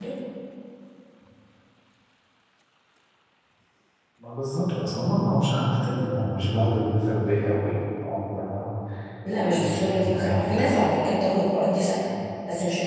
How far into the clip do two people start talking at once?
9 s

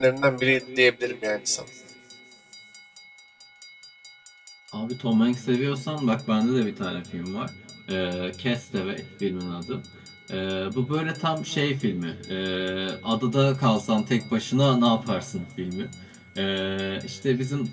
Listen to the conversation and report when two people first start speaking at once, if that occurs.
none

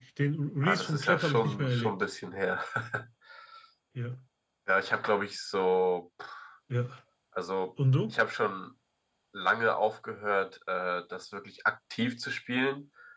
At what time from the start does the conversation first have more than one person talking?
1 s

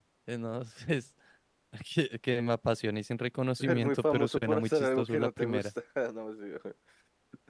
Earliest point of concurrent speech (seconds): 4 s

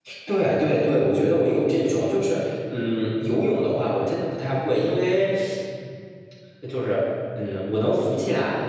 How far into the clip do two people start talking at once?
none

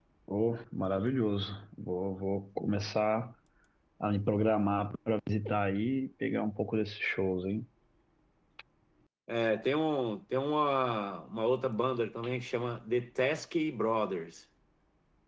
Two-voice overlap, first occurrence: none

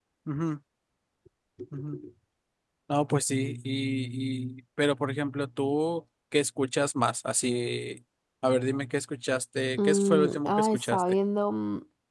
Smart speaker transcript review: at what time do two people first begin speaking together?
10 s

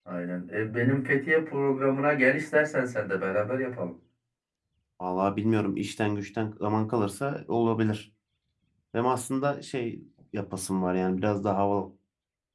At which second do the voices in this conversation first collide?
none

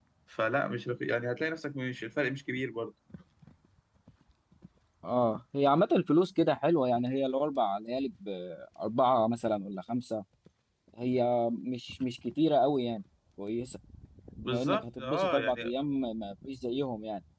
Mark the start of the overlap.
14 s

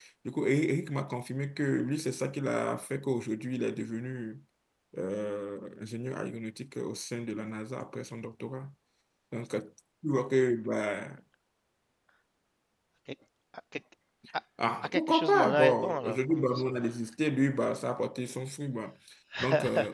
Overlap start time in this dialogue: 15 s

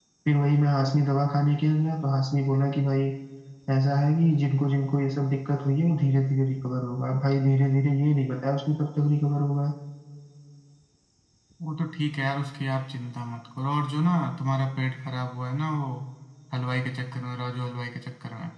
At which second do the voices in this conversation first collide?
none

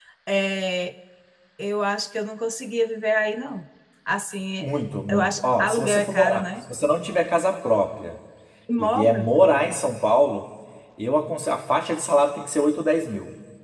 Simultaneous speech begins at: 5 s

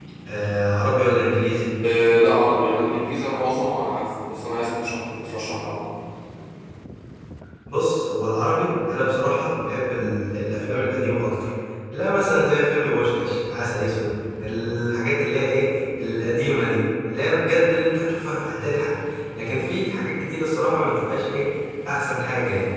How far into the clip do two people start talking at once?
none

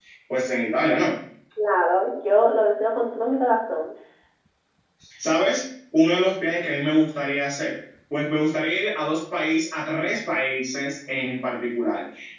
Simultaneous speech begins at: none

